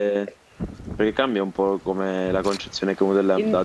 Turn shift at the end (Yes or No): No